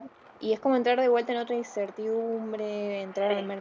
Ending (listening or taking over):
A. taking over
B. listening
A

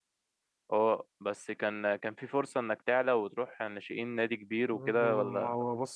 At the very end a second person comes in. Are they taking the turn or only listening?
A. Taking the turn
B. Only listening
A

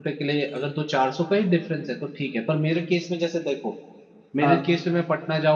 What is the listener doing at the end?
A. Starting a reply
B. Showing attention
B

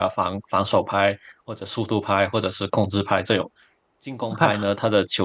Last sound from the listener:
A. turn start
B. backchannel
B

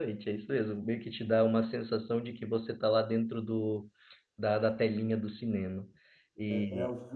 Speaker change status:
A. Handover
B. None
A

